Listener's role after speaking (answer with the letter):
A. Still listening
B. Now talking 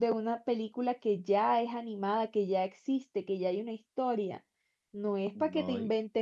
A